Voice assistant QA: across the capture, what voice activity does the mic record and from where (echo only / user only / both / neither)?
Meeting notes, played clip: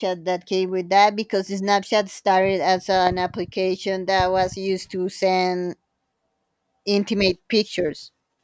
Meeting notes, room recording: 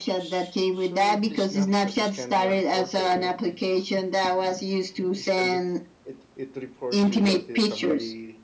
both